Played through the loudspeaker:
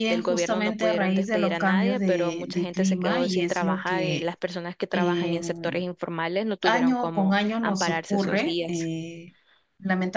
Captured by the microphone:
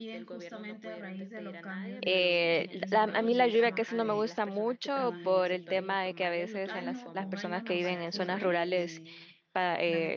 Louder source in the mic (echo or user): user